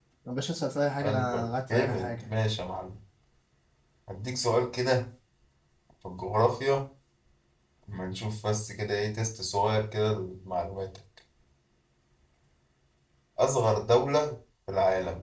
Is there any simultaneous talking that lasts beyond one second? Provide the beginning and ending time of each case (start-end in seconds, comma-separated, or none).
1.0-2.3